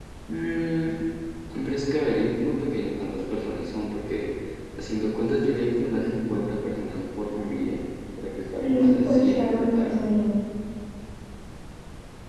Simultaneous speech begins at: 8.6 s

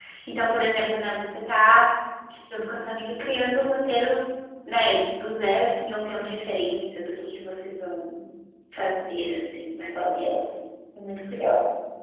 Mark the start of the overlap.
none

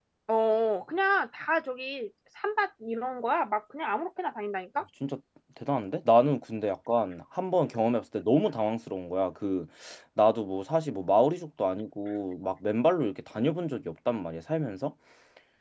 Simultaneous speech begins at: none

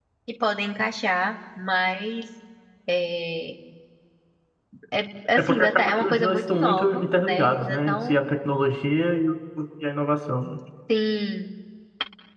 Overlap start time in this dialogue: 5.3 s

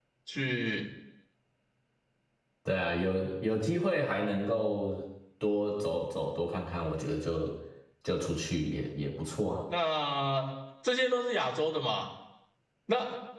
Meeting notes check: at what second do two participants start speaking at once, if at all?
none

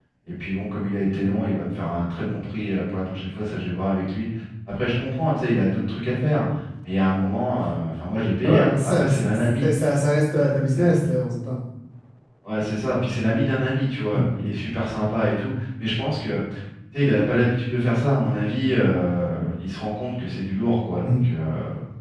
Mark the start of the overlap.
8.4 s

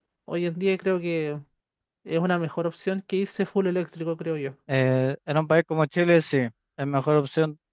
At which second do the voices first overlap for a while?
none

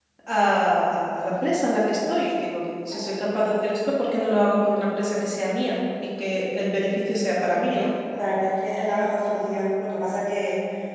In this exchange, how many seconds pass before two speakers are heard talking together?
none

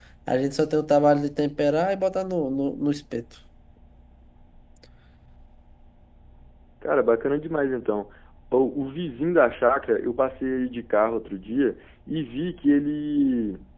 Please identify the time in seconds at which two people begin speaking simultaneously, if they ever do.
none

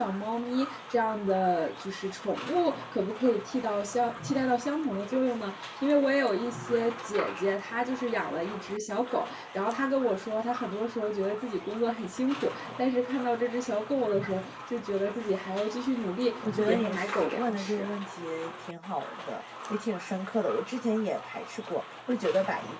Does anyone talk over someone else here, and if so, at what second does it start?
16.4 s

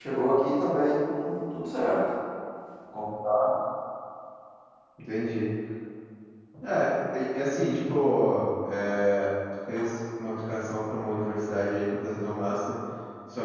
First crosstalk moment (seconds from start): none

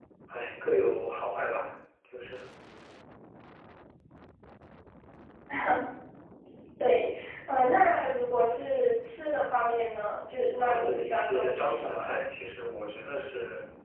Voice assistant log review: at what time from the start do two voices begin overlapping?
10.6 s

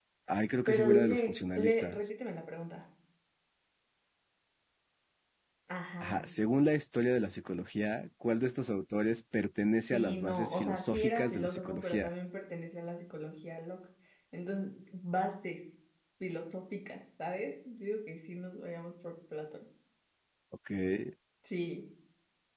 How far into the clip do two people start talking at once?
0.7 s

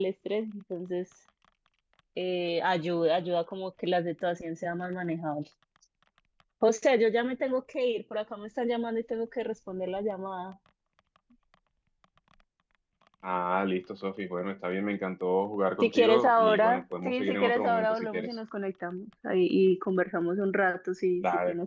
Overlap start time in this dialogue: 15.8 s

